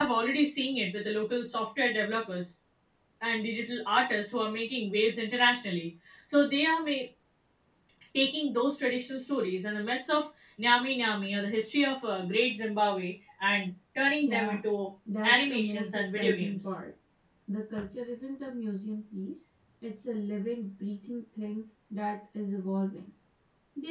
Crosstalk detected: Yes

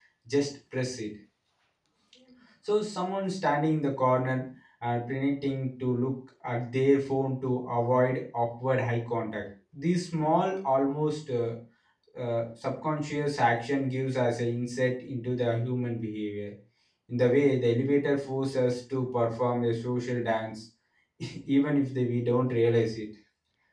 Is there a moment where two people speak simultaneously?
No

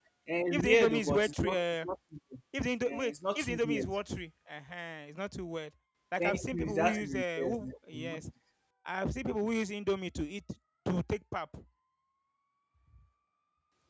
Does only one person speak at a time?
No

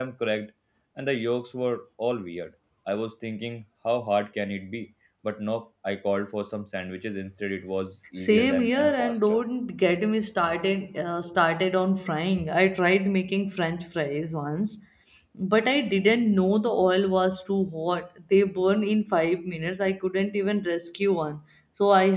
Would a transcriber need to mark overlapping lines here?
Yes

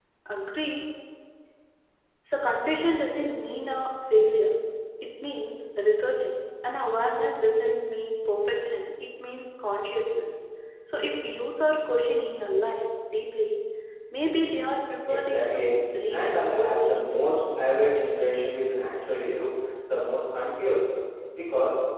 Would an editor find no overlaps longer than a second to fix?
No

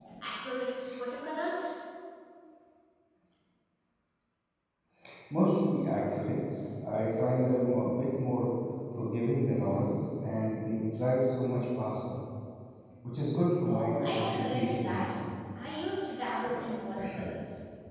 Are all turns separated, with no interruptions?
No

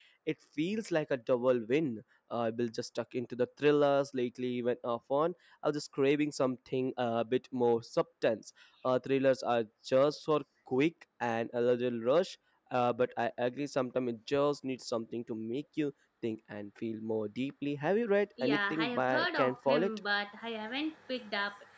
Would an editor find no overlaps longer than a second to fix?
No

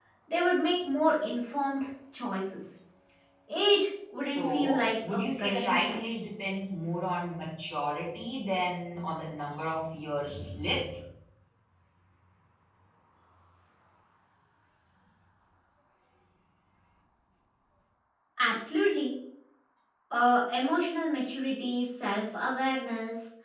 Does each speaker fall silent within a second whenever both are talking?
No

